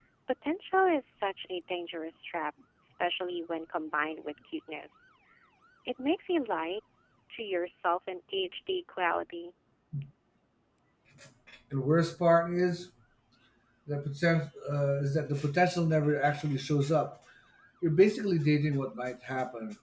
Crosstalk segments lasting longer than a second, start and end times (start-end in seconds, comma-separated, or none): none